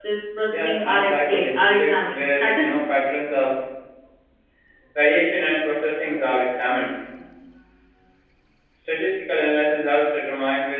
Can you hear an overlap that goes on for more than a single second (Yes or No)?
Yes